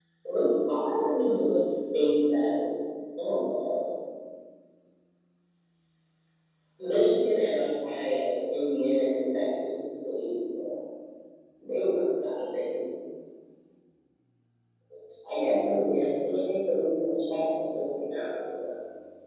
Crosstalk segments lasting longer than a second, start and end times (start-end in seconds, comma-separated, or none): none